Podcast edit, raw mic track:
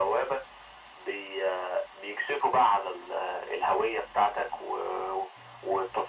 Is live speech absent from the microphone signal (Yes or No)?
Yes